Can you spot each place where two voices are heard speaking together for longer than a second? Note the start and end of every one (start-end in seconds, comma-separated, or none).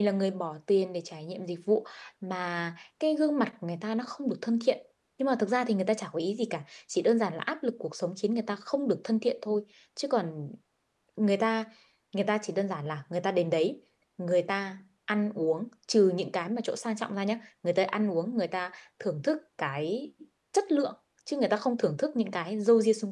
none